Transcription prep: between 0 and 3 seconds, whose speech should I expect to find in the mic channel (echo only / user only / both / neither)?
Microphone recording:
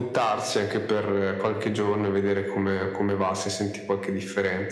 echo only